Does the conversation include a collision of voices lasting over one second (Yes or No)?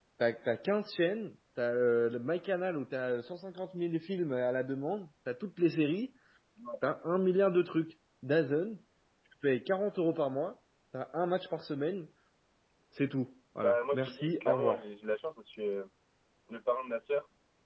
Yes